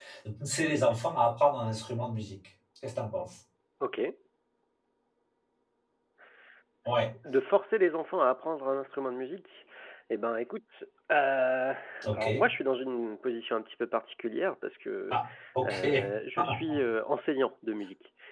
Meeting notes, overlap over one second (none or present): none